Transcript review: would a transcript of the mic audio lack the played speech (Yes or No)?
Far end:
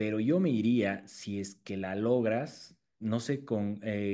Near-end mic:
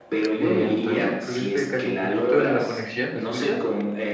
No